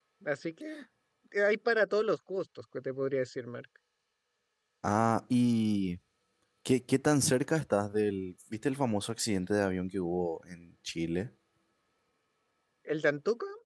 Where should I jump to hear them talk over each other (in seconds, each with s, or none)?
none